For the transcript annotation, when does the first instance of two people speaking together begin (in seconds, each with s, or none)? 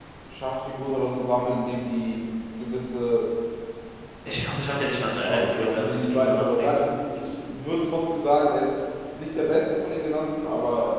5.2 s